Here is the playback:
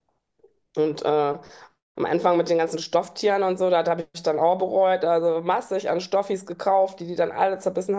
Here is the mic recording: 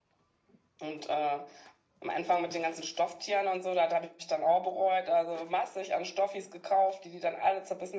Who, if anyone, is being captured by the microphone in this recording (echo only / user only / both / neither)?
echo only